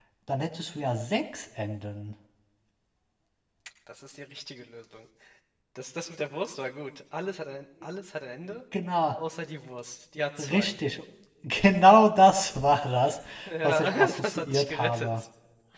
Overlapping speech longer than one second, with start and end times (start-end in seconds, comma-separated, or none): 13.6-15.2